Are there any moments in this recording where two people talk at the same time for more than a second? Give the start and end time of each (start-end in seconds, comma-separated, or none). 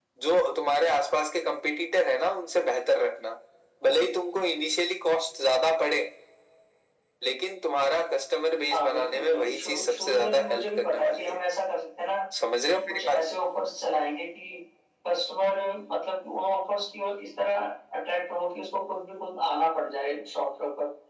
8.7-11.4